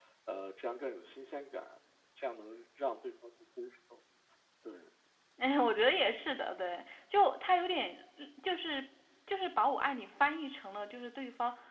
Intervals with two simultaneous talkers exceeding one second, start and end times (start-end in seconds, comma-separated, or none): none